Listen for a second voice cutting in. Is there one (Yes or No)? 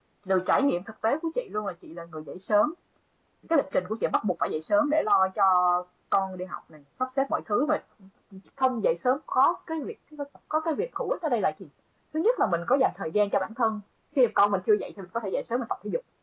No